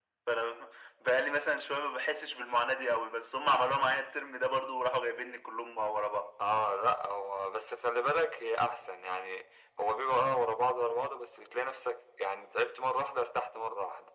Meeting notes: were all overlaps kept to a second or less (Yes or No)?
Yes